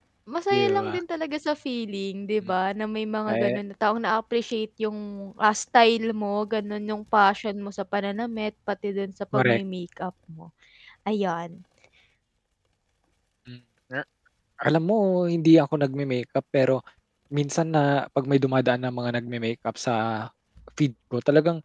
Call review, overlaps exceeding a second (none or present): none